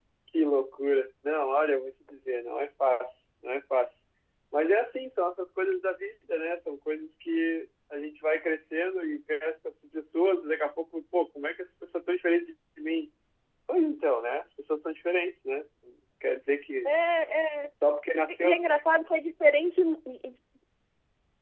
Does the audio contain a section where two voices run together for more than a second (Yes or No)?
No